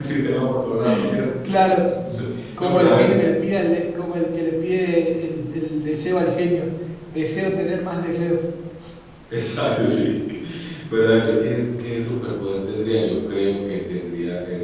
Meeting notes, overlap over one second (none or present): none